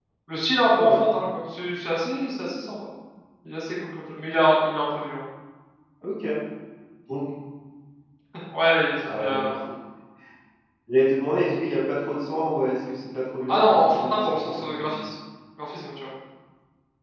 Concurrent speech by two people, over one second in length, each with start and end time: 13.5-15.0

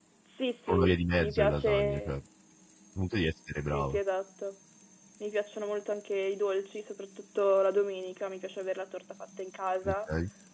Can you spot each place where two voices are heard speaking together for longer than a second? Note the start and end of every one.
0.7-2.2

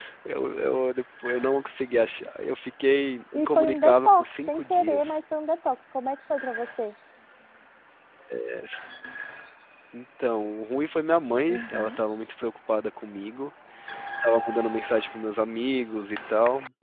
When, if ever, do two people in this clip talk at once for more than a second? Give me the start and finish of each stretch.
3.3-5.2

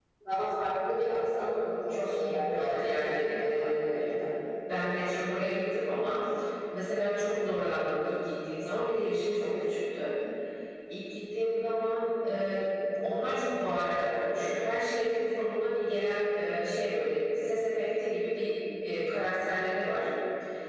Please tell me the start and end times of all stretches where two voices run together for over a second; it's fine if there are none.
1.9-4.0

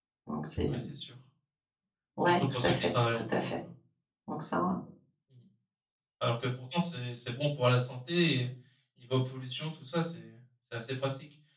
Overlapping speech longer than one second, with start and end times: 2.3-3.5

